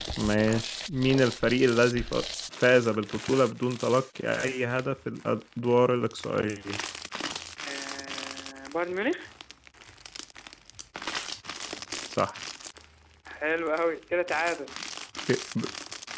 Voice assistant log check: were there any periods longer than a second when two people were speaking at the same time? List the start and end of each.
none

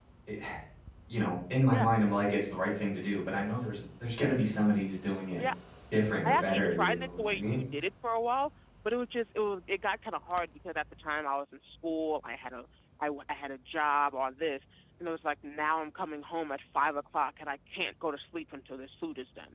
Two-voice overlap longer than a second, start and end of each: 6.2-7.6

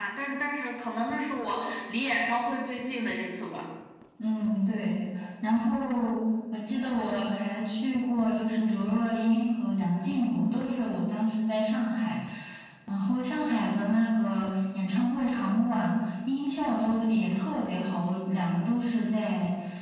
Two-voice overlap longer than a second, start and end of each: none

